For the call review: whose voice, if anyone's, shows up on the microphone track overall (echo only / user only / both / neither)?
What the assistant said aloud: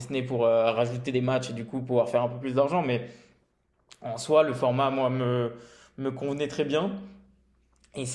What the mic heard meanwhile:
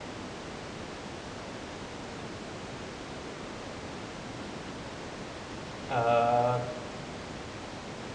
user only